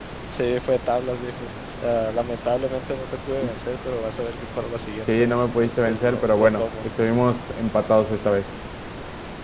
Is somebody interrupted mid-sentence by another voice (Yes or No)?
Yes